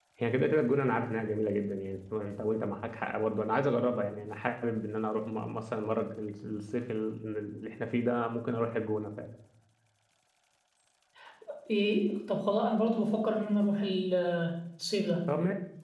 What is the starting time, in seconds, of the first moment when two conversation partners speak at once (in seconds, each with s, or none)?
none